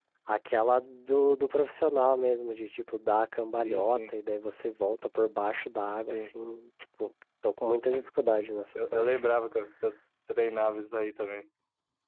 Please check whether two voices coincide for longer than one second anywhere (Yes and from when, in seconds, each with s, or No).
No